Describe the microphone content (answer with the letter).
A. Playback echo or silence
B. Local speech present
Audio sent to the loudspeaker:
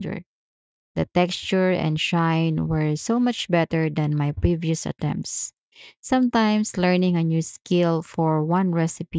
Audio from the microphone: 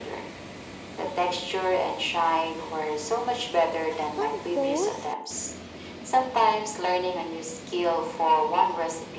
B